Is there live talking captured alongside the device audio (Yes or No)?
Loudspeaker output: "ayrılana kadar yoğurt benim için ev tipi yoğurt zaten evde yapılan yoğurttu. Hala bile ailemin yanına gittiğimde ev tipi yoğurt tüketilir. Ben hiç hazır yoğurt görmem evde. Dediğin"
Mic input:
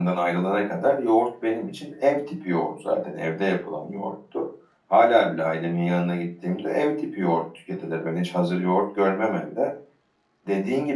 No